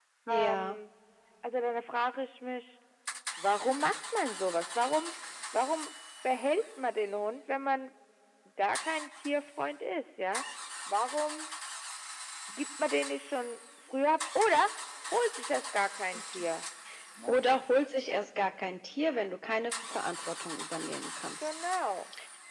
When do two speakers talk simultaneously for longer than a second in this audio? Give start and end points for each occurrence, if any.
none

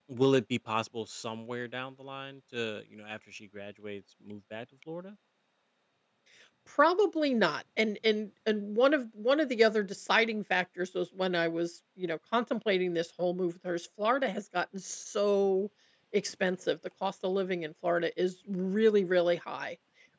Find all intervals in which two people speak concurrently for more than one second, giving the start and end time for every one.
none

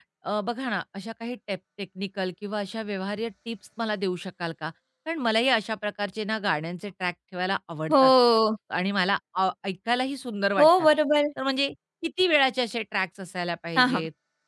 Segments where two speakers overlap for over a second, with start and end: none

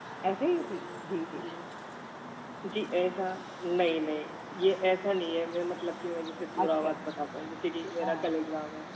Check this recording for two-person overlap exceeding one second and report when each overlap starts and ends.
none

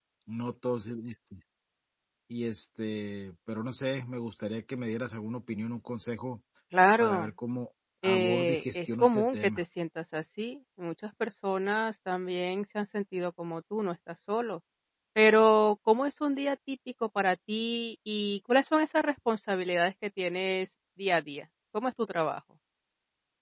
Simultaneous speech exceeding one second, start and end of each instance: 8.0-9.6

